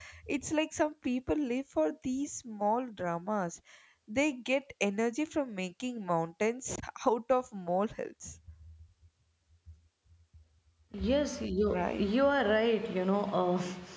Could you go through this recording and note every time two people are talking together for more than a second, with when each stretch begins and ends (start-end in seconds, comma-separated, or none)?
none